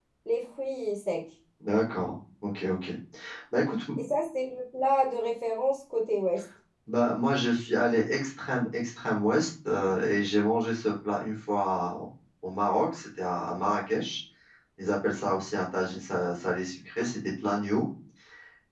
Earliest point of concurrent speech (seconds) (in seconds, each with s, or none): none